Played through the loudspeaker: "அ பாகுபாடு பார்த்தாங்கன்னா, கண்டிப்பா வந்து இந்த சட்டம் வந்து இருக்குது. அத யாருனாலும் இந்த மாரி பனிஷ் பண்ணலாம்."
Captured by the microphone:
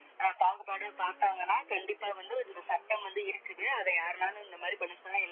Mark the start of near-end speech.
none

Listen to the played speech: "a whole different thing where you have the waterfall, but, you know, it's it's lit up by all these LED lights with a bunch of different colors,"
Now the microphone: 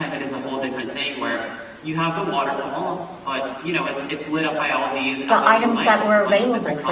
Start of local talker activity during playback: 5.3 s

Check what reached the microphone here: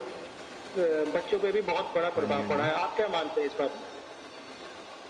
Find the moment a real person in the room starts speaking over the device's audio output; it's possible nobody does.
2.2 s

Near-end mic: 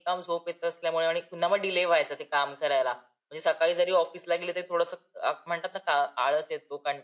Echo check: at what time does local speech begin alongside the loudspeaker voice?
none

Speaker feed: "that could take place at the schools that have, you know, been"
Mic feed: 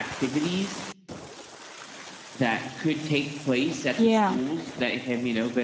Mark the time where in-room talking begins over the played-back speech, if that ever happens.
4.0 s

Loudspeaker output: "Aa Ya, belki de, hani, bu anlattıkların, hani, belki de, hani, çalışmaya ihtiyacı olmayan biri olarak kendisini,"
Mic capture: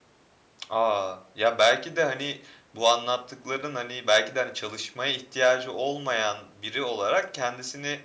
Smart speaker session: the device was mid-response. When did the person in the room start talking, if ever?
none

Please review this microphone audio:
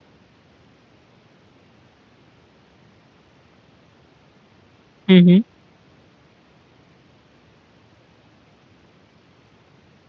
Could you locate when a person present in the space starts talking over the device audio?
5.1 s

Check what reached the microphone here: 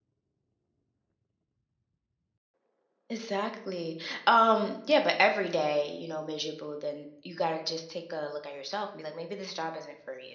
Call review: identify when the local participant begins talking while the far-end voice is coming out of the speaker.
3.1 s

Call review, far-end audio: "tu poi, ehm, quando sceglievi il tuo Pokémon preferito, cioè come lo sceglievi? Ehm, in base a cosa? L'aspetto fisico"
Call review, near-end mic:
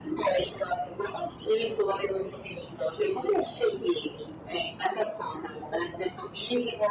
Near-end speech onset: none

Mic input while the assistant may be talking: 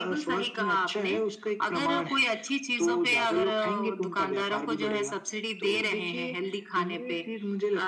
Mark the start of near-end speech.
none

